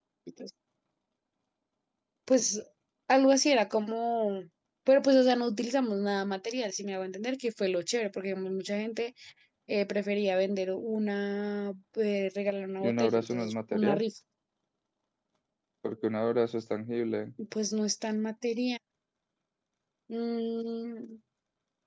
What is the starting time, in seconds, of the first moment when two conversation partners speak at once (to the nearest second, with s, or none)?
13 s